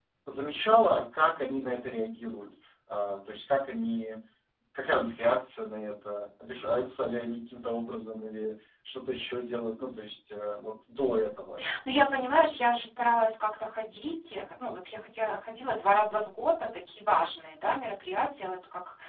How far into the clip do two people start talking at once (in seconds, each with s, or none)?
none